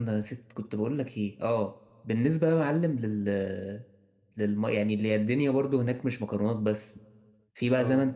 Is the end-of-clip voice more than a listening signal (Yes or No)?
No